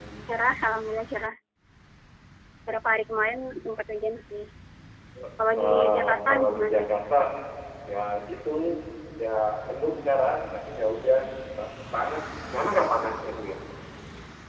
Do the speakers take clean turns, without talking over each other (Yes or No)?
No